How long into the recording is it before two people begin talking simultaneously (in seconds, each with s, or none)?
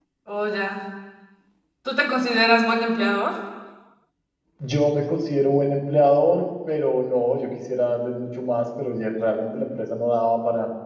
none